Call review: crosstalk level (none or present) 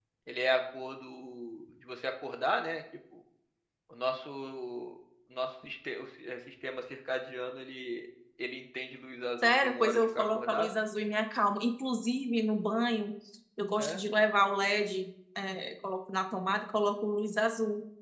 present